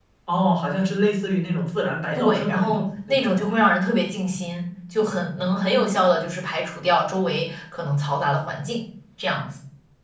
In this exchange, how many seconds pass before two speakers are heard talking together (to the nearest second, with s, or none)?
2 s